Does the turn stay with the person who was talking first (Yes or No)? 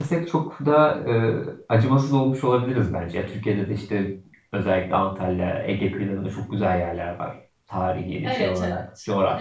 No